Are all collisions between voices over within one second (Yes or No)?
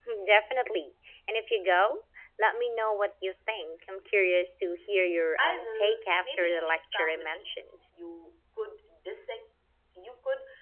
No